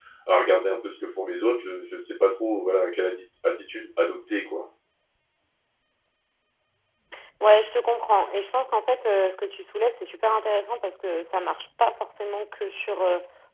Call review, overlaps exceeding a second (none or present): none